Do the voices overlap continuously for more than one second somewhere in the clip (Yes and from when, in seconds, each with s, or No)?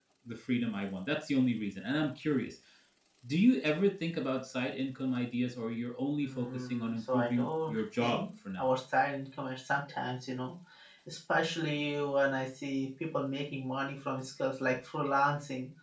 Yes, from 6.2 s